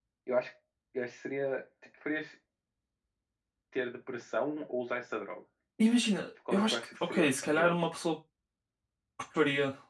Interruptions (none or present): present